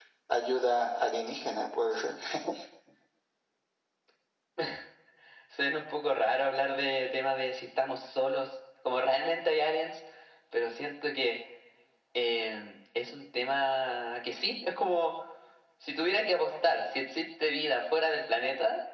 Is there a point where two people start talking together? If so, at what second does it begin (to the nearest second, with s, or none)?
none